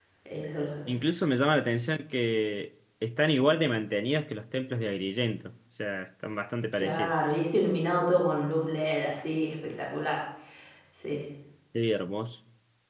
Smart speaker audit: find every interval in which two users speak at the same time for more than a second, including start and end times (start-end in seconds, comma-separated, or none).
none